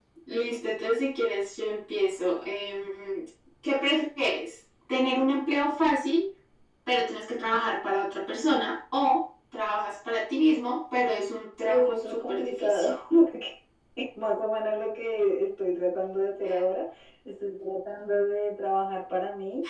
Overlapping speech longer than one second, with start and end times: 11.6-12.9

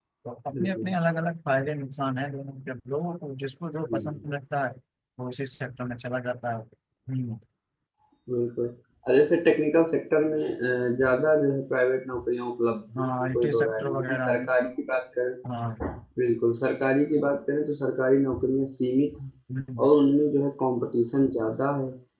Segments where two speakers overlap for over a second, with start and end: 13.0-14.4

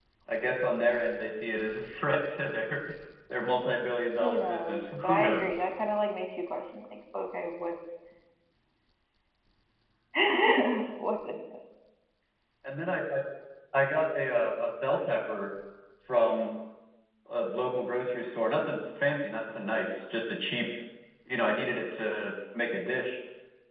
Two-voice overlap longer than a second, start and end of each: 4.2-5.7

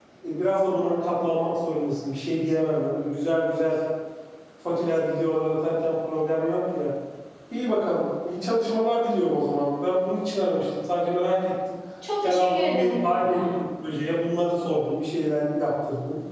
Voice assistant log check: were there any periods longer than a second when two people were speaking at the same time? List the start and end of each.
12.2-13.5

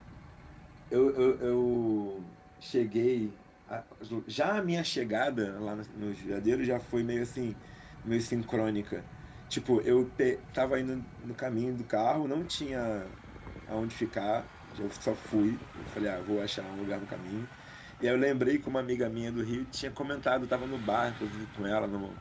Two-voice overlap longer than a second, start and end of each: none

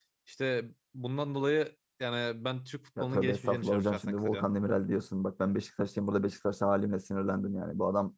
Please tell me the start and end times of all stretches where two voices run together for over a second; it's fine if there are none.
3.0-4.5

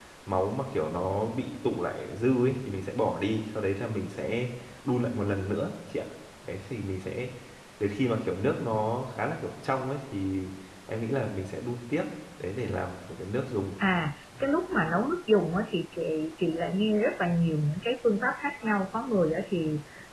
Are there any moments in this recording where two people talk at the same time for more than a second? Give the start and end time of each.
none

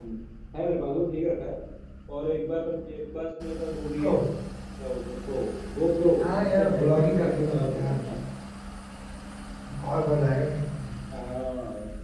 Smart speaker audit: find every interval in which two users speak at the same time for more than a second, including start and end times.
6.2-8.0

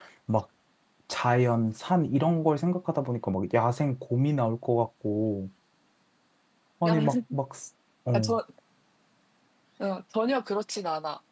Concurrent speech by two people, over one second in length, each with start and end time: none

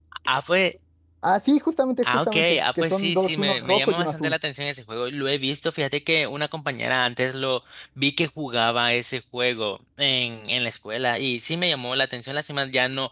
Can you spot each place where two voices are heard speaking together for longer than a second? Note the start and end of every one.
2.0-4.4

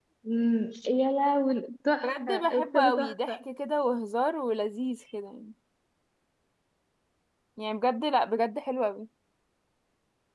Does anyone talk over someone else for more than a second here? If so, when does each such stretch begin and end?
2.0-3.4

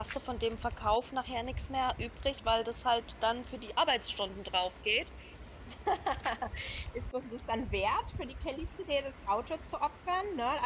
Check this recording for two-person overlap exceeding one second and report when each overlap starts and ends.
none

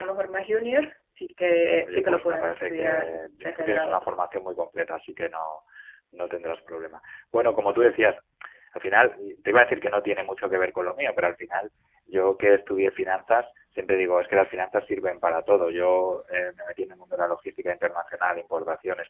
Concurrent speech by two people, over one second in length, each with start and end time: 1.9-4.0

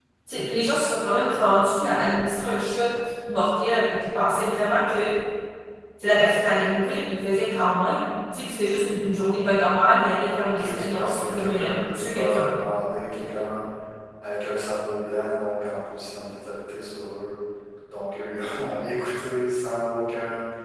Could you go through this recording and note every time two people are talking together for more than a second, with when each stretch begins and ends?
10.5-12.5

